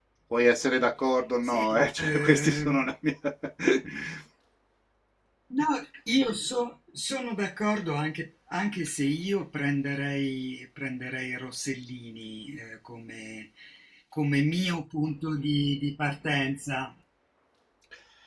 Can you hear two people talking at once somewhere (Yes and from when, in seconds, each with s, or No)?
Yes, from 1.4 s